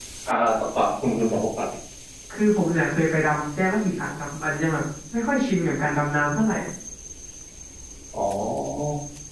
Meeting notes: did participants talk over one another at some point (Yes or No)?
No